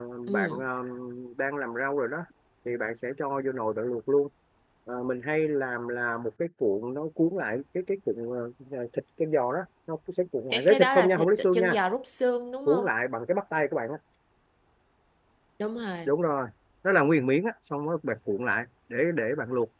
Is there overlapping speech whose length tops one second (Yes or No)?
Yes